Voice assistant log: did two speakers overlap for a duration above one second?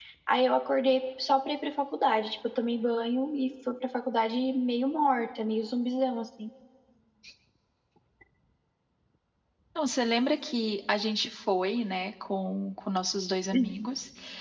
No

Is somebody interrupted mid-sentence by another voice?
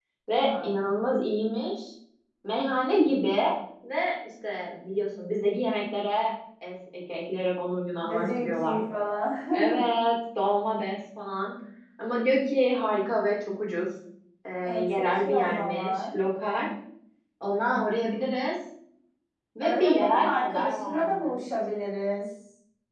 Yes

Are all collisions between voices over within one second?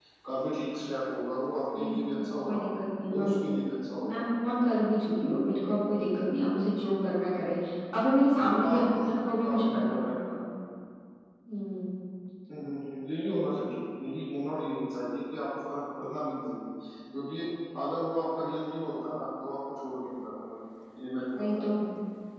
No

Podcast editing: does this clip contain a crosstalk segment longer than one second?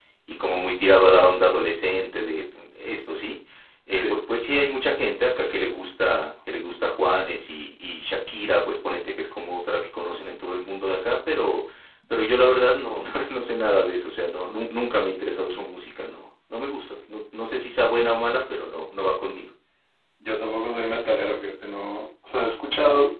No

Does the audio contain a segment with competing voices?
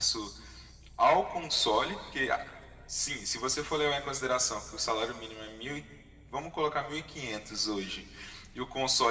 No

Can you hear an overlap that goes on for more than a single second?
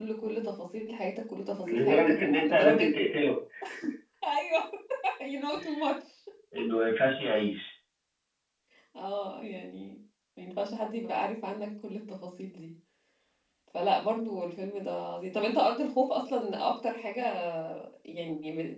Yes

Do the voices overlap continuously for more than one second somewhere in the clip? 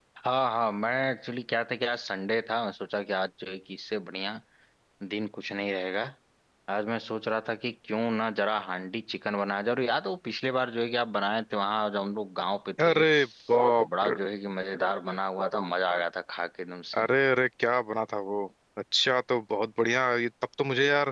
No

